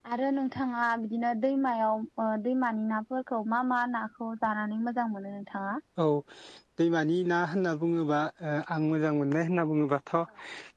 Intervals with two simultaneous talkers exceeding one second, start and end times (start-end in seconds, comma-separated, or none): none